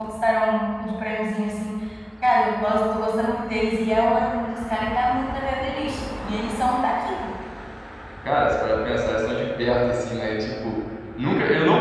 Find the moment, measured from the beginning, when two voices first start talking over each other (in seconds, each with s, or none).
none